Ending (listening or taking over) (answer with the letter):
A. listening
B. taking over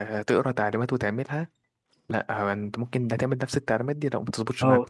B